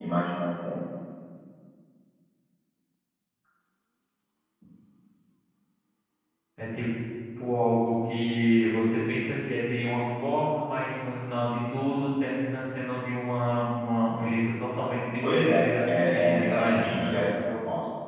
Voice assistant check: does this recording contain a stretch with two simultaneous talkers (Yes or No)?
Yes